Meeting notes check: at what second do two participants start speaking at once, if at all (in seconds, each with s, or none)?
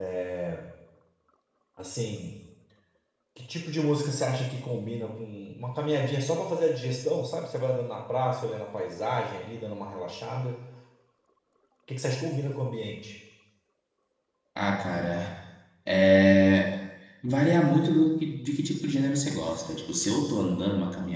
none